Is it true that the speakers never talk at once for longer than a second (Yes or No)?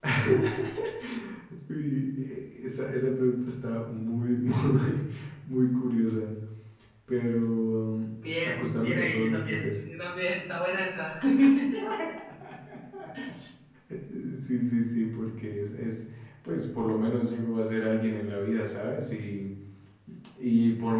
No